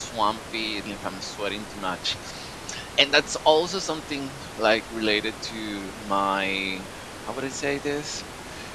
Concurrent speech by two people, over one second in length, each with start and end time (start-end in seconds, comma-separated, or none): none